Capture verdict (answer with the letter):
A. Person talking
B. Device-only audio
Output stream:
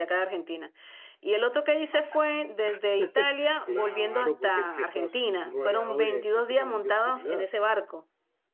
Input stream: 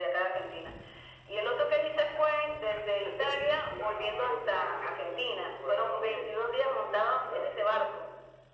B